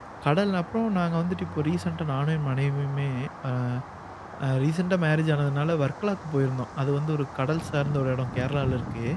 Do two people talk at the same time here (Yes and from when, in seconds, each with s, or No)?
No